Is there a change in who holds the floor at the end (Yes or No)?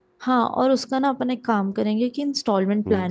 No